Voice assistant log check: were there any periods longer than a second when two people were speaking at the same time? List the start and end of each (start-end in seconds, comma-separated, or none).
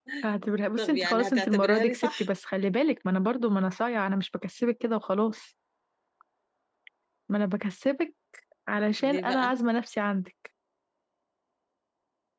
0.8-2.3